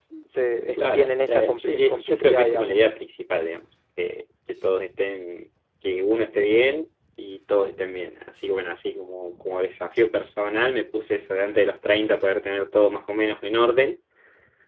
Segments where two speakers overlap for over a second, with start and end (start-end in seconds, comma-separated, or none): 0.8-2.9